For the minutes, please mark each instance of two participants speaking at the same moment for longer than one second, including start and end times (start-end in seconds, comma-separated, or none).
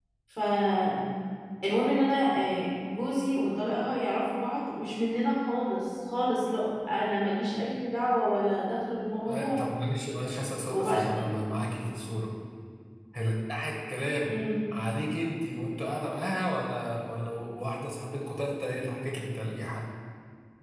none